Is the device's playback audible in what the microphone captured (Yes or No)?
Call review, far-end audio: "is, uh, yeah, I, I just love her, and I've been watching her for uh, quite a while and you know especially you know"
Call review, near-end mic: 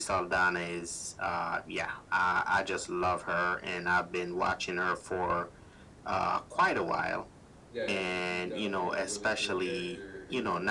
Yes